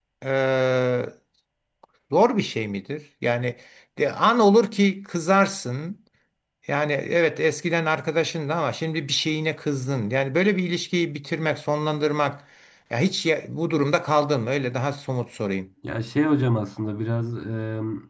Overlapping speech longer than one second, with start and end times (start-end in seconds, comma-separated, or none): none